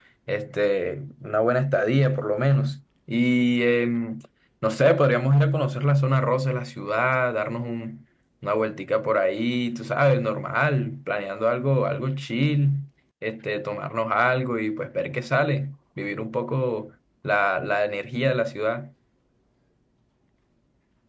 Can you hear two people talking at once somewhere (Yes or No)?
No